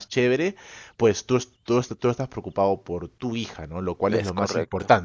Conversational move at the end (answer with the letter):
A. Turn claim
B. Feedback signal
B